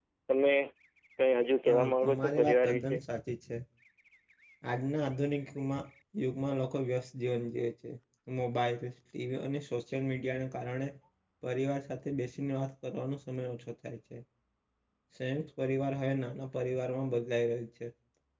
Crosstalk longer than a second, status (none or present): present